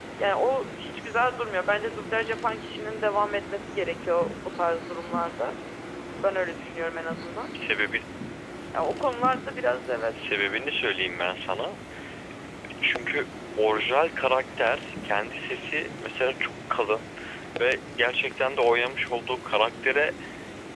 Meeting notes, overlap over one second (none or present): none